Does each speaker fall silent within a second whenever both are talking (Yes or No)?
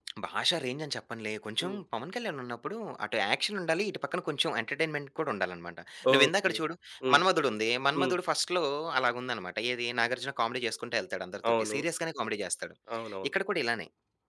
Yes